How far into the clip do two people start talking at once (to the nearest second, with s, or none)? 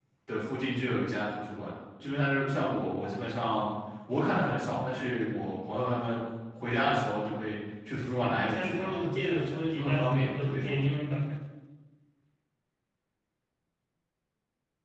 8 s